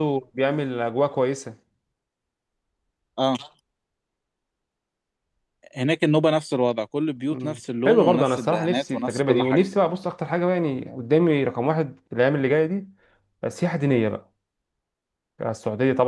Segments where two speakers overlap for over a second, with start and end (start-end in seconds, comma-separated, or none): 7.3-9.6